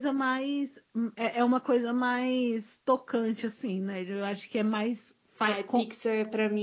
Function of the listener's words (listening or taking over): taking over